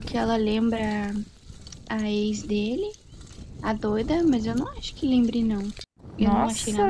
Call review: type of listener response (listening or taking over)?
taking over